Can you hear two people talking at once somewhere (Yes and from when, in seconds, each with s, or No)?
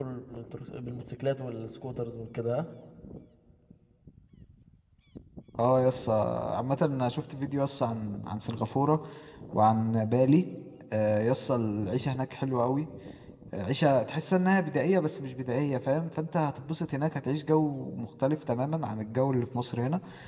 No